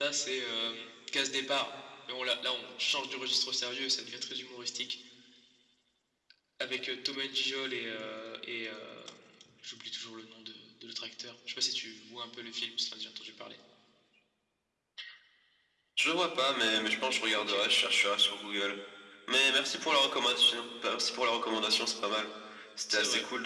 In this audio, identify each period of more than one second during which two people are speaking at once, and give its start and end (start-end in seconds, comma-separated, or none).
none